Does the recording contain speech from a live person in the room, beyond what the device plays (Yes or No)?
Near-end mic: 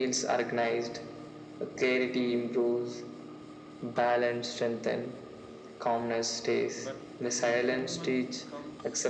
Yes